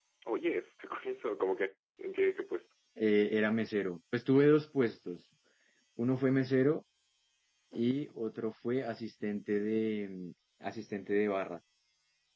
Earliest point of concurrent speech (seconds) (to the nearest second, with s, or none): none